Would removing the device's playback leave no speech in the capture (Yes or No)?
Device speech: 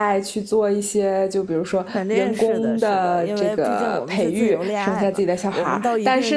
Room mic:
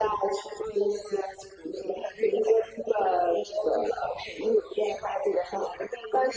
Yes